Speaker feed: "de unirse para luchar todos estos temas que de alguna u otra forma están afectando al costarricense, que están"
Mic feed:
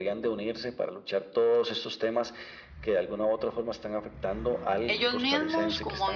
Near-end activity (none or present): present